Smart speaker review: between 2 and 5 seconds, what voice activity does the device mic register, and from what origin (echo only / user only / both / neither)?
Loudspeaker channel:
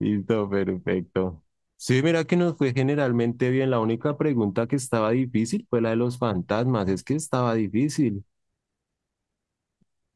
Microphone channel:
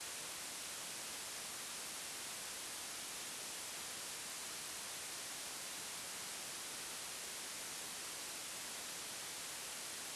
neither